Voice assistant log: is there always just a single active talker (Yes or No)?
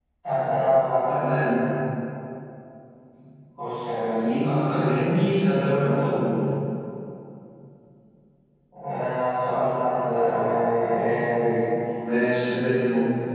Yes